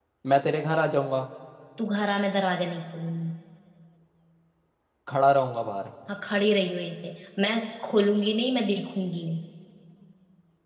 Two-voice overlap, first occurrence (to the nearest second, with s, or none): none